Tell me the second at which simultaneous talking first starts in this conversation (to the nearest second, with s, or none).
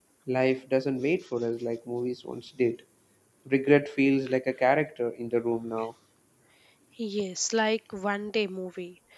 none